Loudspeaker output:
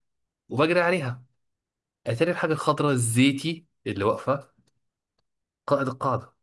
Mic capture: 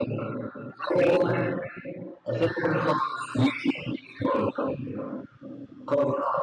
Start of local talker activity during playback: none

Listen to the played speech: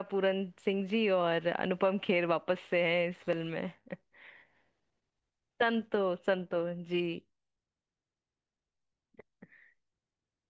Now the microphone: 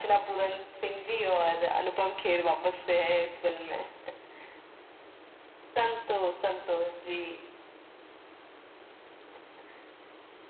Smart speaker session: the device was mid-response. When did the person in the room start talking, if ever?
none

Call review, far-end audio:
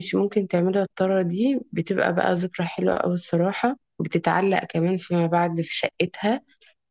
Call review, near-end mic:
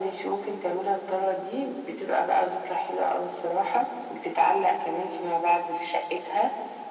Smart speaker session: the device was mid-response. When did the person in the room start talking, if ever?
none

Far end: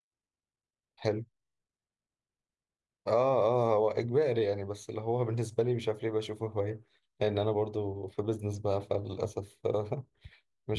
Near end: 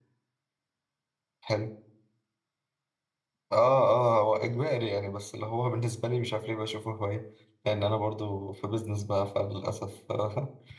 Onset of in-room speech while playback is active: none

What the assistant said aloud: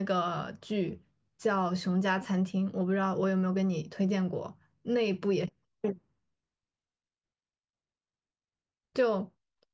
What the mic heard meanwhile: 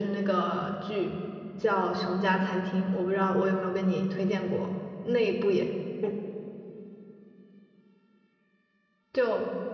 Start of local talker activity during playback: none

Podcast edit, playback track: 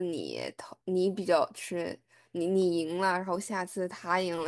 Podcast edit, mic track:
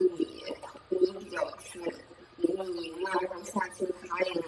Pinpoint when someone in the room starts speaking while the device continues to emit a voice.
none

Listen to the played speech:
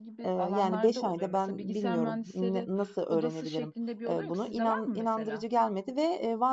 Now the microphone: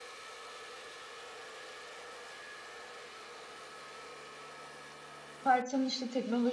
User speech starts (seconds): 5 s

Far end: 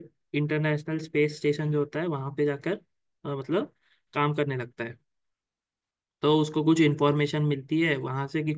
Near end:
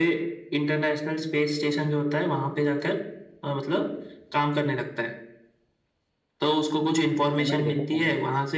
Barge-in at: 7 s

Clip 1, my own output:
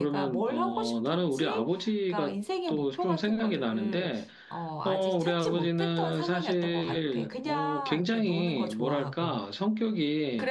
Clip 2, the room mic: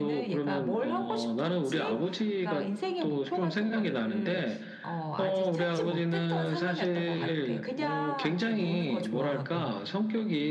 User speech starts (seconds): none

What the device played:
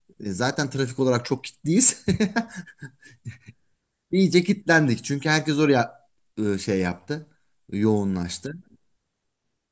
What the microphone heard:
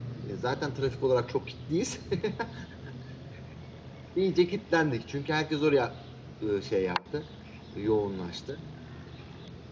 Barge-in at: none

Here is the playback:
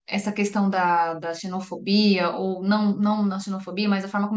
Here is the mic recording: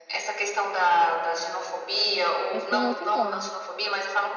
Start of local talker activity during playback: 3 s

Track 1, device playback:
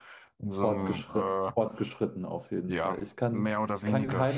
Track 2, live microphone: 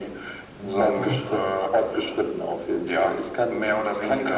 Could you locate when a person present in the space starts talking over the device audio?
1 s

